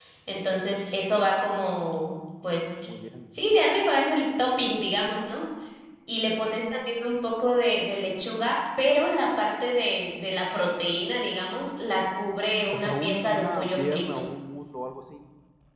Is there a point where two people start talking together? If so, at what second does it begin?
12.7 s

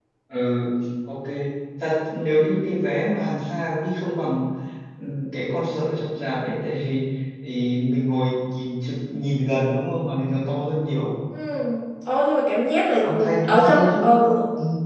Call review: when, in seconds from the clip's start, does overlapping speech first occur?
13.0 s

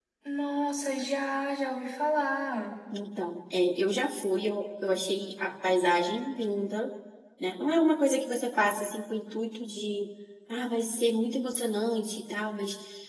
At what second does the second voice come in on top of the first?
none

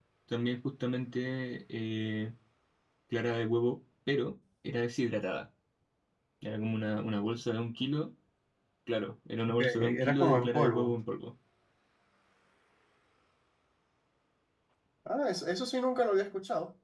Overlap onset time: 9.6 s

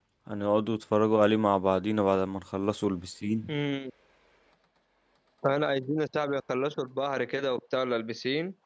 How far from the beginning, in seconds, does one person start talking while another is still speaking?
none

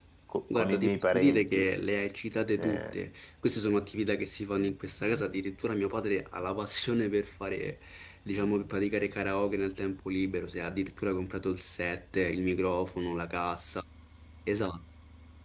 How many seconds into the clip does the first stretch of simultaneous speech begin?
0.5 s

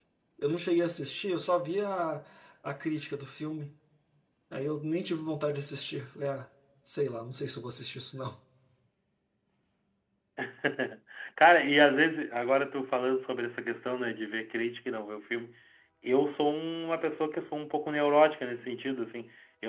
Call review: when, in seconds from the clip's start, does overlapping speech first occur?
none

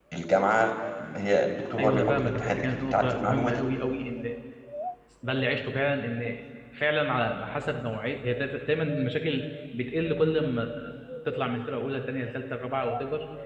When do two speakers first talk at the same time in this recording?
1.8 s

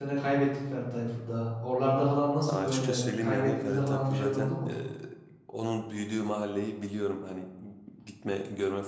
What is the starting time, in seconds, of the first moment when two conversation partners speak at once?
2.4 s

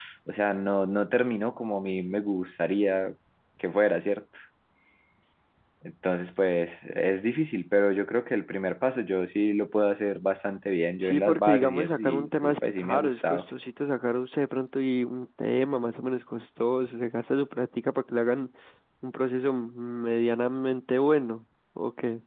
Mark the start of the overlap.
11.0 s

